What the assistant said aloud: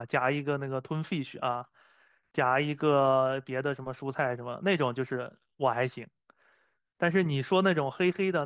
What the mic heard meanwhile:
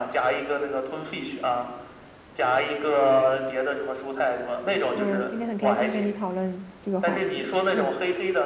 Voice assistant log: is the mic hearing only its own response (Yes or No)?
No